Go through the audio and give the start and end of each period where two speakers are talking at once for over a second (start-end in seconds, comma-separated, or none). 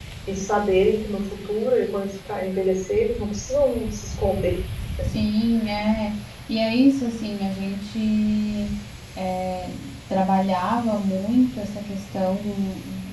none